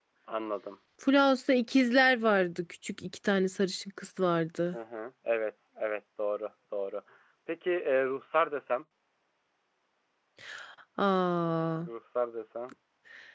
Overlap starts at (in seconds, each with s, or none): none